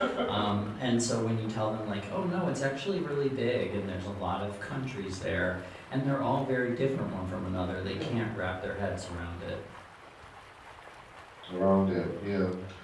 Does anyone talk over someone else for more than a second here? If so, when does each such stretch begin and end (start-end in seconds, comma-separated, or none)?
none